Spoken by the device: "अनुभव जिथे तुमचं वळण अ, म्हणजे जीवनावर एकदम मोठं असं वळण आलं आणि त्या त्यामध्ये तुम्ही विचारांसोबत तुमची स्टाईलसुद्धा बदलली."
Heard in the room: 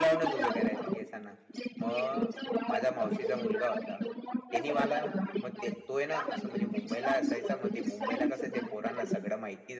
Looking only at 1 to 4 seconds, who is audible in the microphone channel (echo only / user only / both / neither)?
both